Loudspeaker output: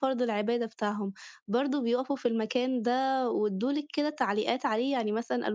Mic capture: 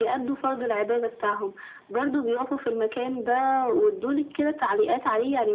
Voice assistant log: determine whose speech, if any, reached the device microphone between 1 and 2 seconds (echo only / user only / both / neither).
echo only